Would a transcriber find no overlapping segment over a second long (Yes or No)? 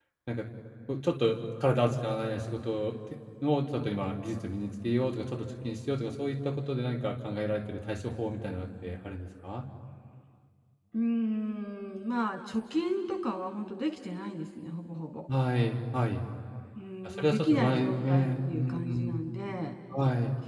No